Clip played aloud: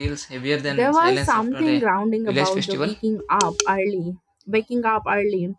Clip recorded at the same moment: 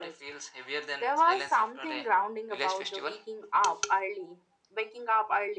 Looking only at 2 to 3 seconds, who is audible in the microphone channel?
echo only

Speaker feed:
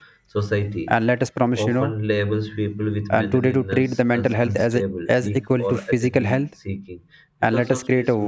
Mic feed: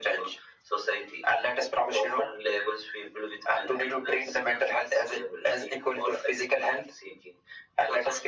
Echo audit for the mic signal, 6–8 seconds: echo only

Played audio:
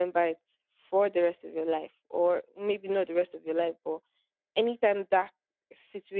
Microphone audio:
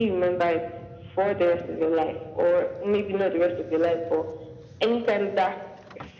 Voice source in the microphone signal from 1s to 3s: echo only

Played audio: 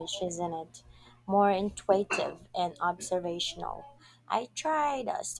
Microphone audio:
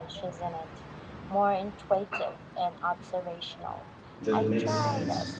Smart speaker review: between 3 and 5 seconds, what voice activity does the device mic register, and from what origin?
both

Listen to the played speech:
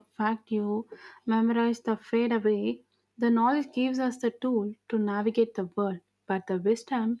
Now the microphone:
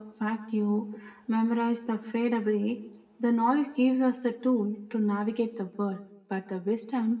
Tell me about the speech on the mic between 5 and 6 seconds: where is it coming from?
echo only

